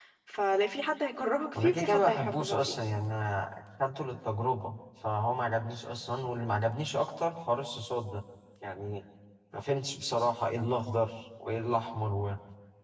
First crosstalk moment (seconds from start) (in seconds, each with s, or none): 1.5 s